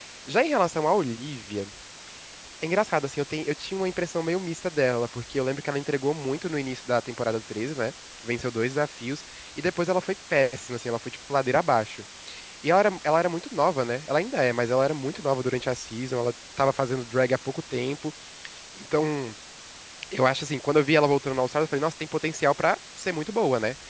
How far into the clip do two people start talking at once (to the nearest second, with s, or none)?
none